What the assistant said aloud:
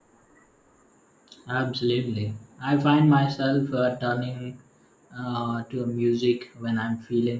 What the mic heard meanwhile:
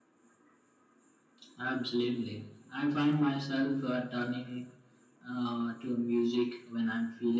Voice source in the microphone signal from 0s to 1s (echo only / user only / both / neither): neither